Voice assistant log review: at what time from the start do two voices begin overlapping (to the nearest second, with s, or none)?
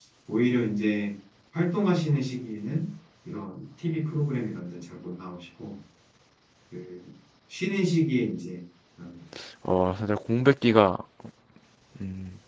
none